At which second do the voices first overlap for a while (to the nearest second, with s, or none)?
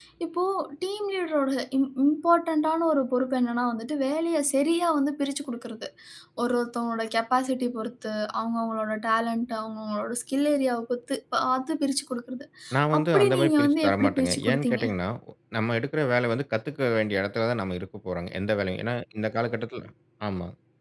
13 s